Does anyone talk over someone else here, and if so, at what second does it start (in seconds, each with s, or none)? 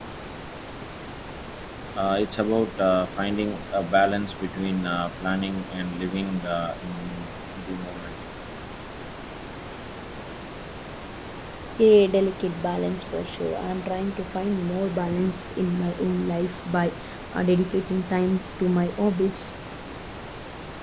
none